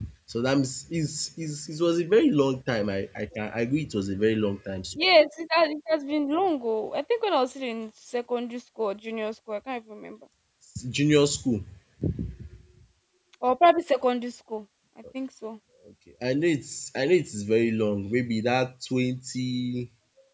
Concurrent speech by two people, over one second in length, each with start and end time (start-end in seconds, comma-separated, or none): none